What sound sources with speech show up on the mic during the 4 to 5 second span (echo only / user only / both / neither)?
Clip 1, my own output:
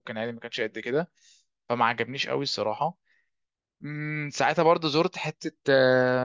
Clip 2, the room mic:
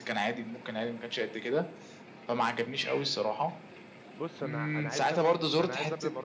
both